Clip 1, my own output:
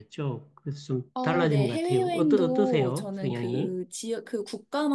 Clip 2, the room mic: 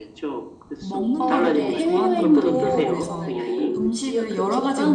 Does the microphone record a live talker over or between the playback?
Yes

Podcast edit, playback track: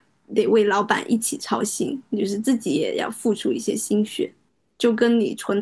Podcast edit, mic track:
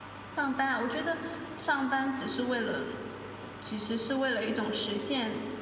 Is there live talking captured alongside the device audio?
Yes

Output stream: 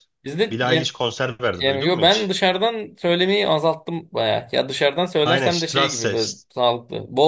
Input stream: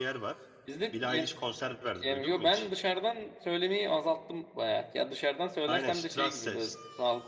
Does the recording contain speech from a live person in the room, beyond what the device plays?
No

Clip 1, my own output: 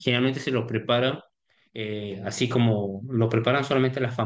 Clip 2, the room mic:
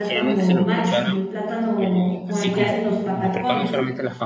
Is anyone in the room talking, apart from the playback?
Yes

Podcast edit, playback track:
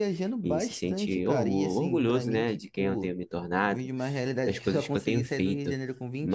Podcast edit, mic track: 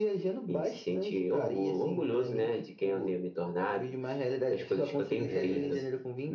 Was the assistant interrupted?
Yes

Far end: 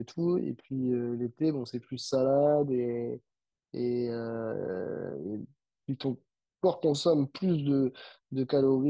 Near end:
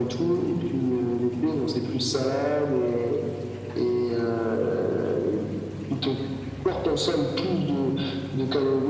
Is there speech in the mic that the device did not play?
No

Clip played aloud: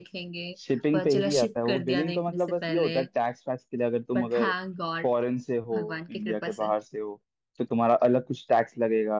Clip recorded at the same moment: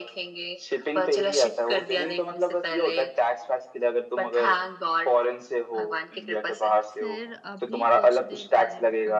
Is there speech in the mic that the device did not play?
Yes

